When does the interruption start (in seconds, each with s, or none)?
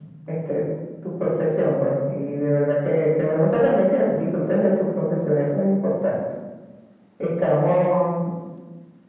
none